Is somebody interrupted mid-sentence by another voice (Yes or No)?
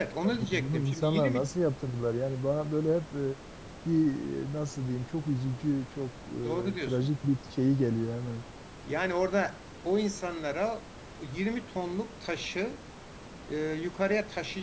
Yes